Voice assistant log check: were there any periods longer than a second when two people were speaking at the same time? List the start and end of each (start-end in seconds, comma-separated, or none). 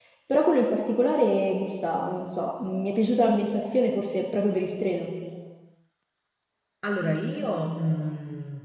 none